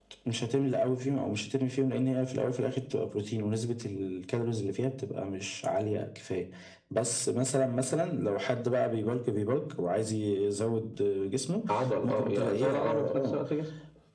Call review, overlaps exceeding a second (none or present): present